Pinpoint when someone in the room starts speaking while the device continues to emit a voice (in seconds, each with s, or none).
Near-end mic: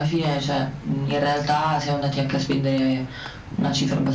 none